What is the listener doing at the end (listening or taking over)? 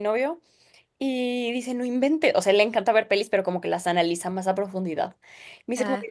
listening